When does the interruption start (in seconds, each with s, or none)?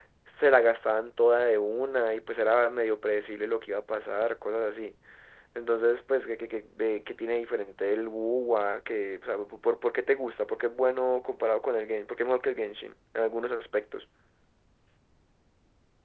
none